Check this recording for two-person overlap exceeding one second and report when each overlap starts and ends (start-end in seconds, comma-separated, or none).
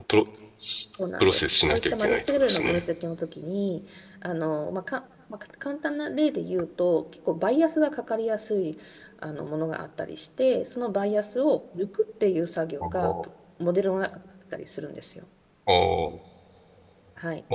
1.2-2.8